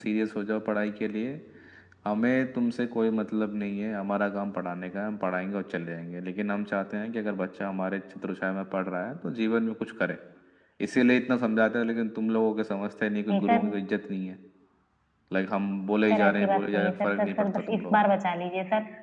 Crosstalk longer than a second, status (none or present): present